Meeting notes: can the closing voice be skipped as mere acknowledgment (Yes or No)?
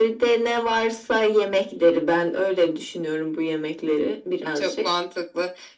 No